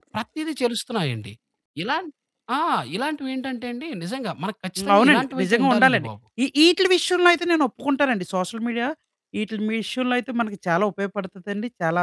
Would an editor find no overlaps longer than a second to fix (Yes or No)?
No